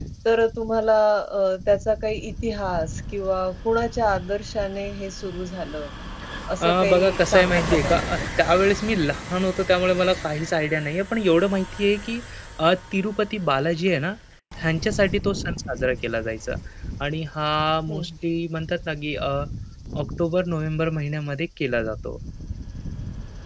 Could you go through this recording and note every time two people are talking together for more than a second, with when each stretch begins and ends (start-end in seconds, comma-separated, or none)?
6.6-8.1